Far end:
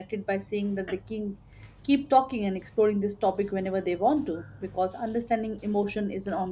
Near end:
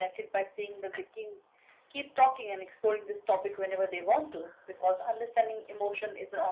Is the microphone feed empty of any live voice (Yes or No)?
Yes